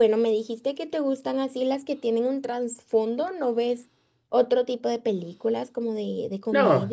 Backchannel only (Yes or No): No